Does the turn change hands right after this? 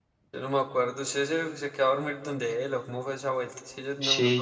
Yes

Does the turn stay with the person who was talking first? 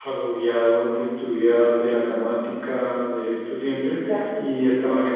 Yes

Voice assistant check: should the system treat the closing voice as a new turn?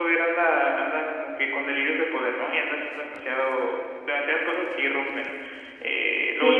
Yes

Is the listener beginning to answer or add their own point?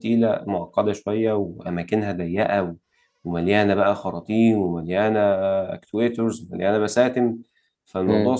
No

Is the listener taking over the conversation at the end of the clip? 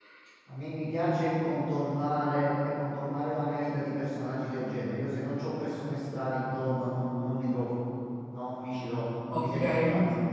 Yes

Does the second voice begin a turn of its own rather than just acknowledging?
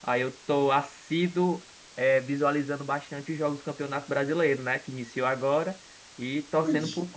No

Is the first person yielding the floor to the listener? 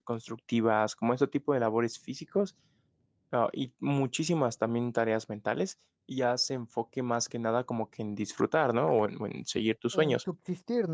Yes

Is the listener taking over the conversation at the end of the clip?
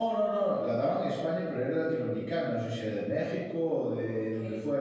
No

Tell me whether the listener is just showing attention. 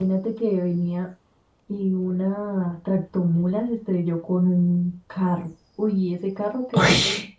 Yes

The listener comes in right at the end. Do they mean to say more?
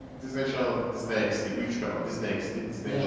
Yes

